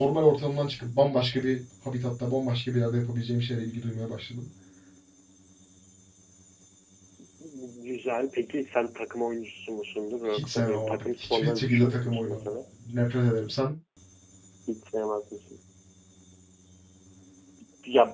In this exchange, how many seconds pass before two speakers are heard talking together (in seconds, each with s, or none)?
10.3 s